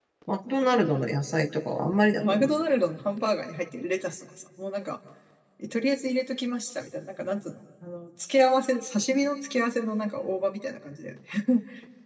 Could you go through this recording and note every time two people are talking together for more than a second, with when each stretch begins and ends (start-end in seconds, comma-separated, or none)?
none